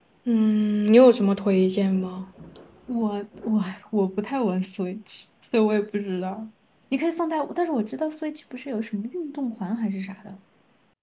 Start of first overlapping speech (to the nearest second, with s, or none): none